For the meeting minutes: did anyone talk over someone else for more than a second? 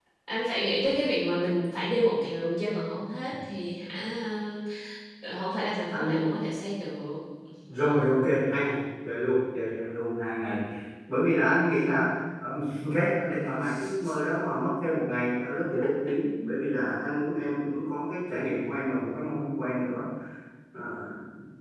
No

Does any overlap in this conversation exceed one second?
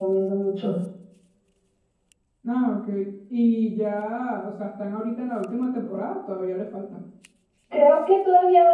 No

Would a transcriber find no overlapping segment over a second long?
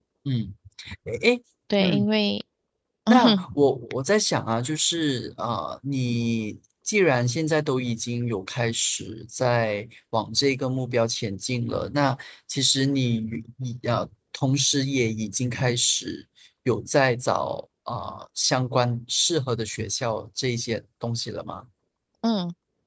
Yes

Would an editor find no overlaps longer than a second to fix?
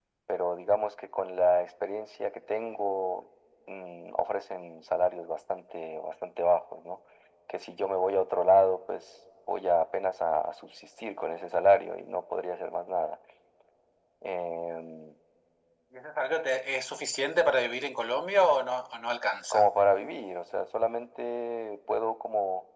Yes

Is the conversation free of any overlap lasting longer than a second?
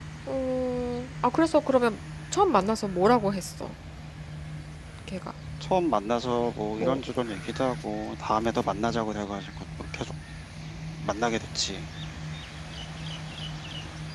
Yes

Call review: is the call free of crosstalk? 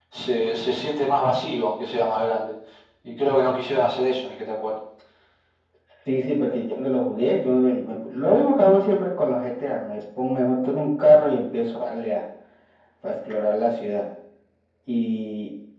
Yes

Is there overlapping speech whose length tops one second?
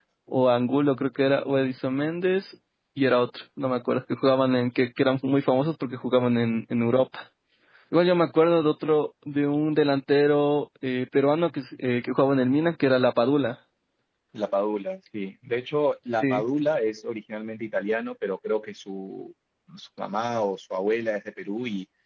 No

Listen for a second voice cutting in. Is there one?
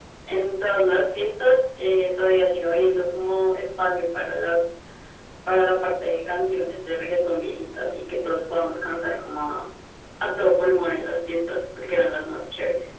No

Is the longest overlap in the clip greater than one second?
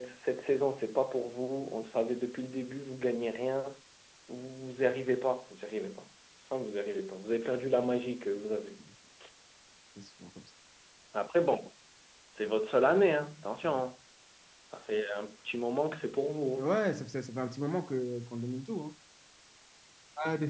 No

